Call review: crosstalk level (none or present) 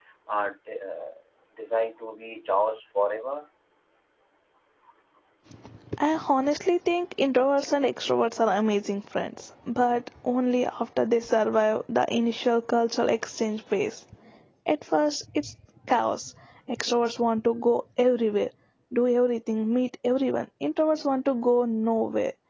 none